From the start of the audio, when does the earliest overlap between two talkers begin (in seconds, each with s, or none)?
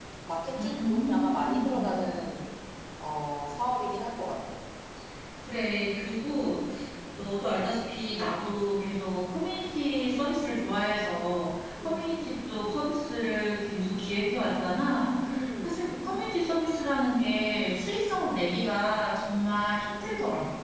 0.6 s